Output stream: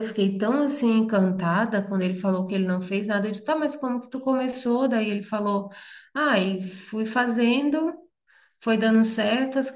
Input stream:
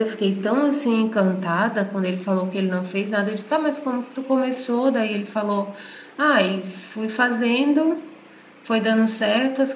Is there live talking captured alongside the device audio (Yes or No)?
No